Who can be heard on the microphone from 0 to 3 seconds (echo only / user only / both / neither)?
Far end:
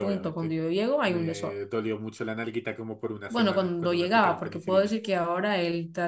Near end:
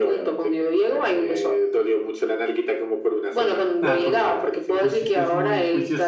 echo only